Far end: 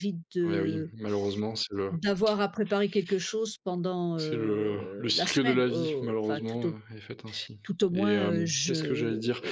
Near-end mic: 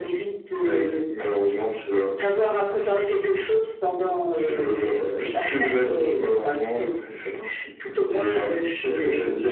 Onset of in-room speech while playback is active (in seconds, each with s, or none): none